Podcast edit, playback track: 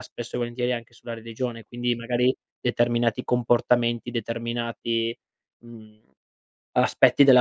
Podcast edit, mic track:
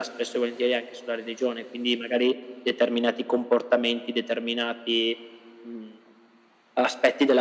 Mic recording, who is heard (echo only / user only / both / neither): echo only